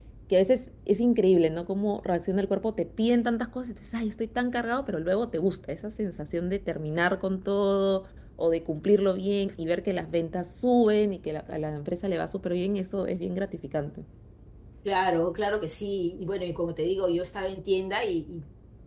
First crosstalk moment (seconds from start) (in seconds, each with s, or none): none